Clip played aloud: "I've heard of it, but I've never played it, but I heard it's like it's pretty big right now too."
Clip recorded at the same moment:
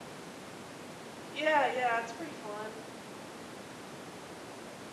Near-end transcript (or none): Yeah, yeah, it's pretty fun.